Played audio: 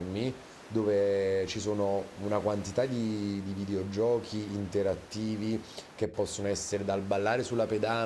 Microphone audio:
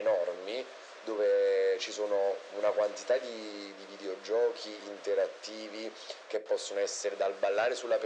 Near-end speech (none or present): none